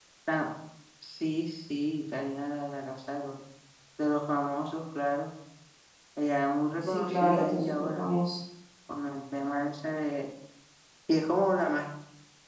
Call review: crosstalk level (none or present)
present